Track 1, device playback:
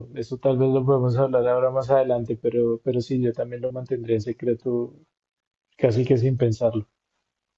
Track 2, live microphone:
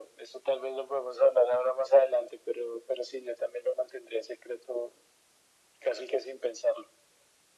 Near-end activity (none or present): none